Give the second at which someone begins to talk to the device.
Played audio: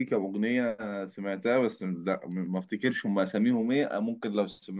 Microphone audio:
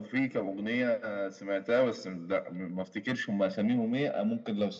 none

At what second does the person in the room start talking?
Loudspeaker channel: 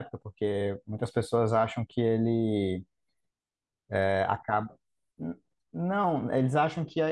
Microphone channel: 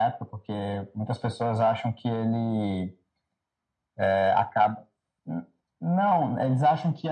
none

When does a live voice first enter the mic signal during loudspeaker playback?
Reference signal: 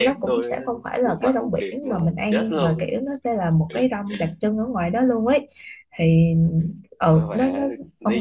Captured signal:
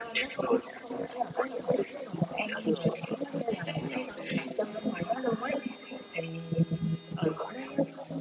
3.5 s

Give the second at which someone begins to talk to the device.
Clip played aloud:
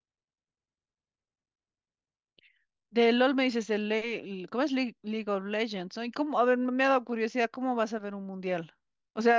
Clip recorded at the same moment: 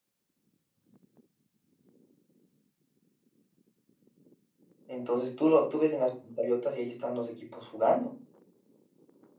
4.9 s

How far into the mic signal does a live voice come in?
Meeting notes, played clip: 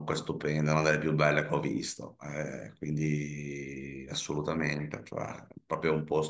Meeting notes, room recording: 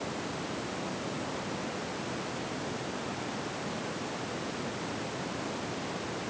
none

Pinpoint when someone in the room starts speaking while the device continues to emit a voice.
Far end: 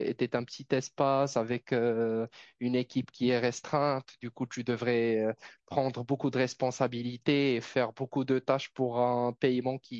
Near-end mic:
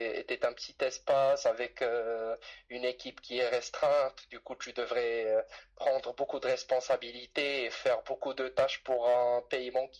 none

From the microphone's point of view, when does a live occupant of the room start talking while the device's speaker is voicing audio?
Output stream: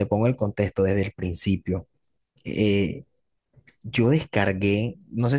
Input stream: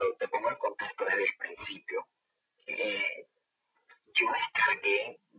none

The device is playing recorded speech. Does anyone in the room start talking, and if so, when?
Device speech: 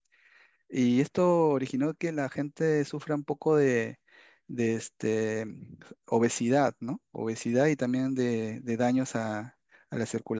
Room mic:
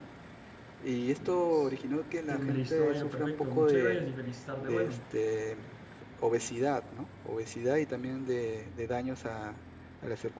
1.2 s

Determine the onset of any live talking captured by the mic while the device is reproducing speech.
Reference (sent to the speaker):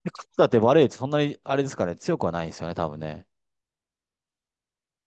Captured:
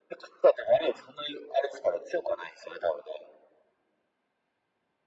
none

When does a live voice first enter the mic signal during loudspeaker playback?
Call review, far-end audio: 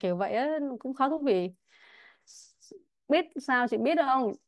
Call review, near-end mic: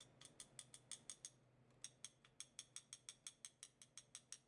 none

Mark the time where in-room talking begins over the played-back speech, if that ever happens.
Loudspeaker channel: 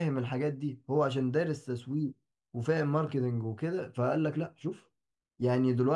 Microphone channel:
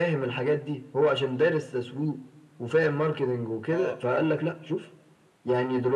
3.7 s

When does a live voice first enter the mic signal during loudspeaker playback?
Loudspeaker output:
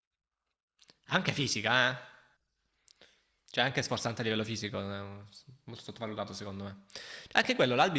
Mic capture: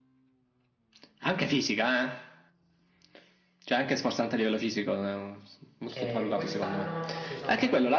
5.9 s

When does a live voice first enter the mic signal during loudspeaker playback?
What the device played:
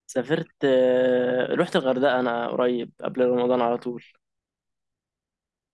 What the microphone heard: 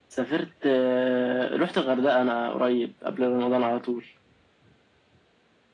none

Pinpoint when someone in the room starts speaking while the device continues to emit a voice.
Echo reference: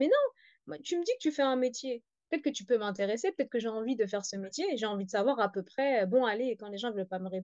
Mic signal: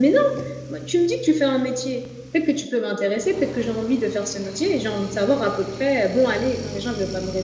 none

